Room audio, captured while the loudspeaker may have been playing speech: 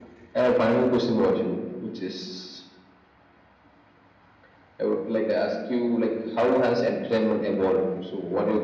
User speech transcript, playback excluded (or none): none